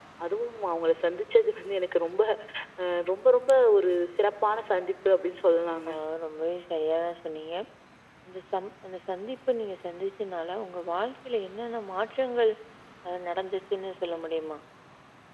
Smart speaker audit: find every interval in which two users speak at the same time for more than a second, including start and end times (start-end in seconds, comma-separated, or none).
none